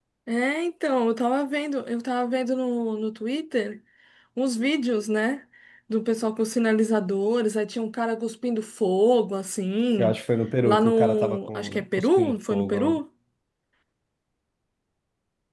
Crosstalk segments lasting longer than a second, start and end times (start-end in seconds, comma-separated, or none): 10.6-13.0